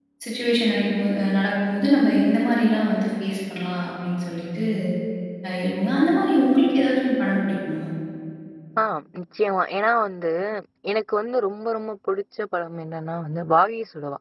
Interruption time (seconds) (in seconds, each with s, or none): none